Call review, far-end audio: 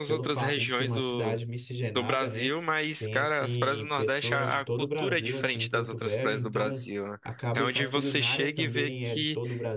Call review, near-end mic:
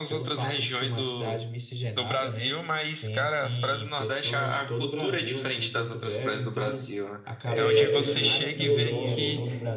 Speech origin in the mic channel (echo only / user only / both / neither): both